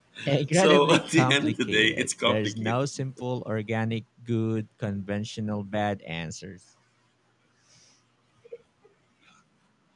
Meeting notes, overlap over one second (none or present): present